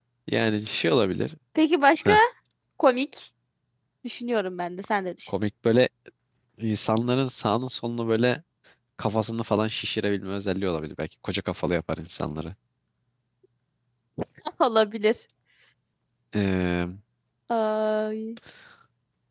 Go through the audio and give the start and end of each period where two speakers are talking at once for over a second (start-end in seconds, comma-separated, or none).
none